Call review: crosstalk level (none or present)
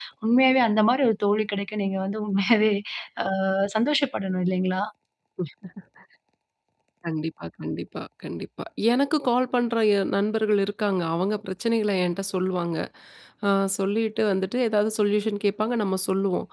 none